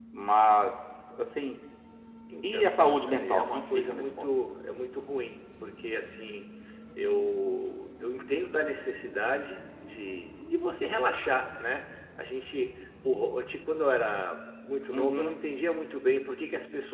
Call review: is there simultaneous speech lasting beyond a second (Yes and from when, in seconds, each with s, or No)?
Yes, from 2.5 s